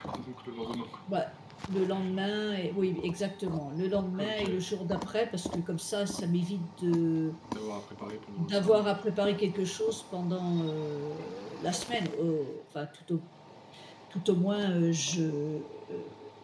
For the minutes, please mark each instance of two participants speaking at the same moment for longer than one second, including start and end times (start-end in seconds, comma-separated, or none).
none